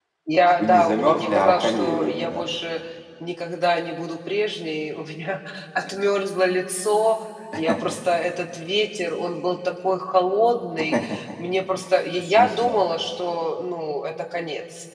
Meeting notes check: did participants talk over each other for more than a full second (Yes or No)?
Yes